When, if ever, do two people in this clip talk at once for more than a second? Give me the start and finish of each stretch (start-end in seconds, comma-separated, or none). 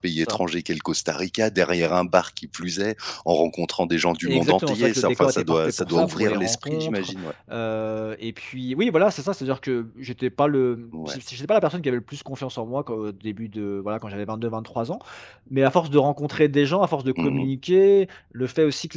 4.2-7.1